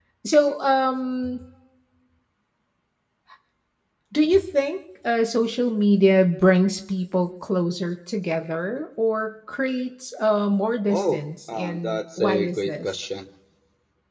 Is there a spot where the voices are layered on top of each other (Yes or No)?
Yes